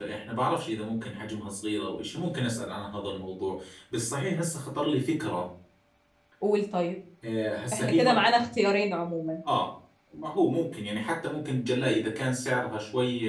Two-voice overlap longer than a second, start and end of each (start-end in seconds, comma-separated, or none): none